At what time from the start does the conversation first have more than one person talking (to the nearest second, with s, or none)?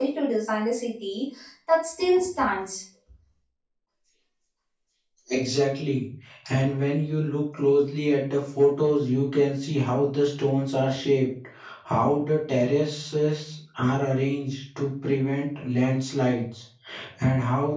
none